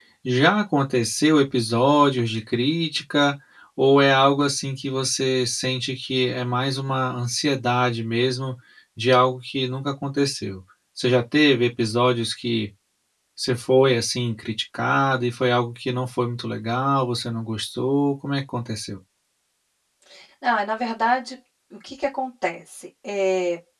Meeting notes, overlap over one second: none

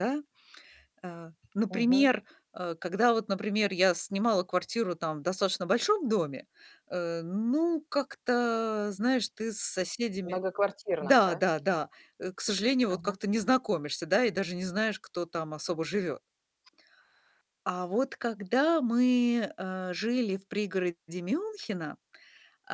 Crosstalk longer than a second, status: none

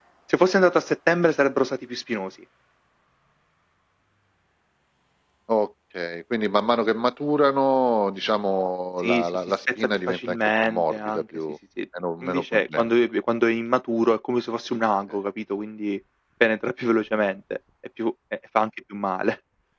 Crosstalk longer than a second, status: present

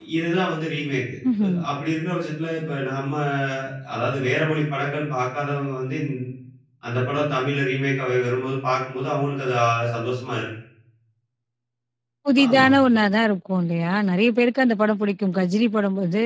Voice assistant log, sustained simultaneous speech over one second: none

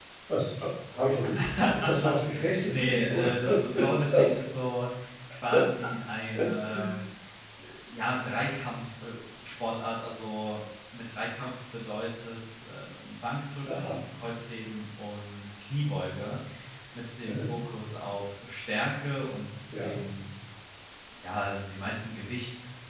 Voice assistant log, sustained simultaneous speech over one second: present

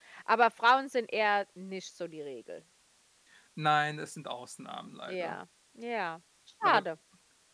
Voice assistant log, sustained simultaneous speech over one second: none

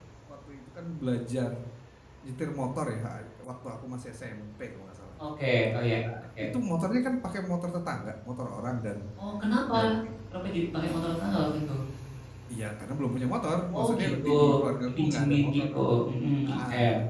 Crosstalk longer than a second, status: present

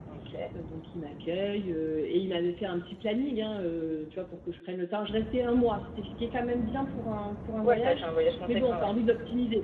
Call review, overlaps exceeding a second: none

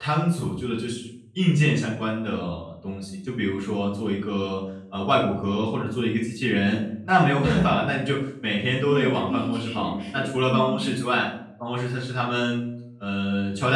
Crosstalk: present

